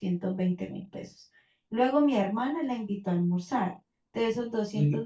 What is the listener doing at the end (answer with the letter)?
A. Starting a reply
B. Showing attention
B